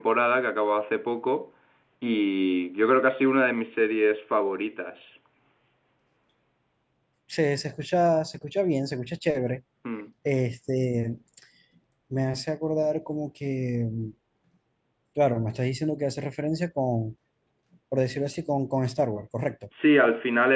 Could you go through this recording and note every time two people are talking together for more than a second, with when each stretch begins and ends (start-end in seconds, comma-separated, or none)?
none